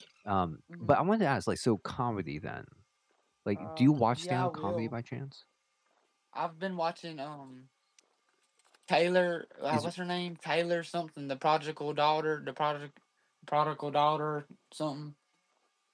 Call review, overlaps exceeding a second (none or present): present